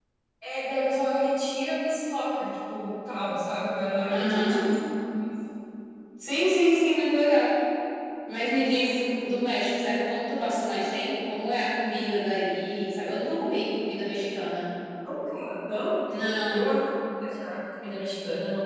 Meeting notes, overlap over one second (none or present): none